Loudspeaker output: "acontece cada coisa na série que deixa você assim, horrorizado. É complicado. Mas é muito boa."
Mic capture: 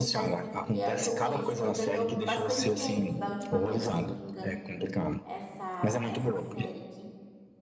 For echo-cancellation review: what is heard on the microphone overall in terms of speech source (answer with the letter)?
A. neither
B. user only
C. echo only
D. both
D